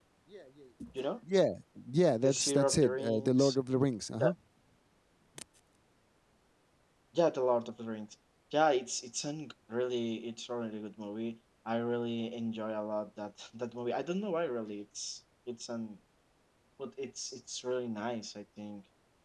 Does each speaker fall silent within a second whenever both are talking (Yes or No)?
No